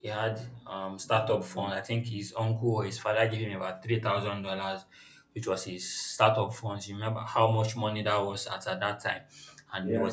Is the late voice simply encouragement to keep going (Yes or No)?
Yes